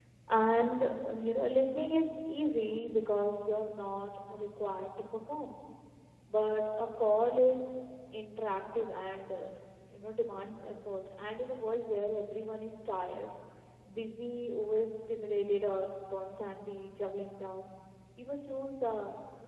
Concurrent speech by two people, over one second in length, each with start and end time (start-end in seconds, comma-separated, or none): none